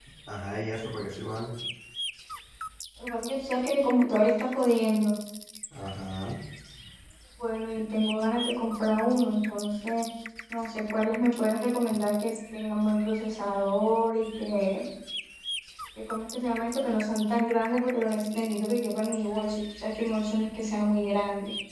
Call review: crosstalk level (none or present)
none